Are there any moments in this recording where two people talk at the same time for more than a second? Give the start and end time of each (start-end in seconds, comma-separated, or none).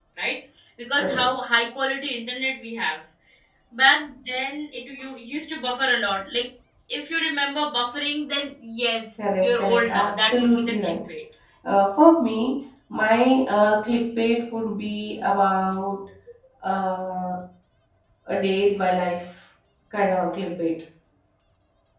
9.4-10.9